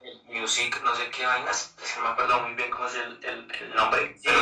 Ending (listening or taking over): taking over